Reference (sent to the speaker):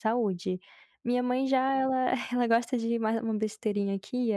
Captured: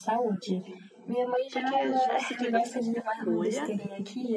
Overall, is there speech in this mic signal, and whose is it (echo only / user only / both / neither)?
both